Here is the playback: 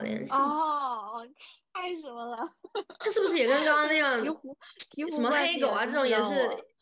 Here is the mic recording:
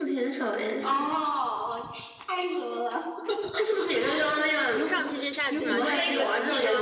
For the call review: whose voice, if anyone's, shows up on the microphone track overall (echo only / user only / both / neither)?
both